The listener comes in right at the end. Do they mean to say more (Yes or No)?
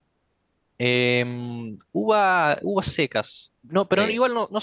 No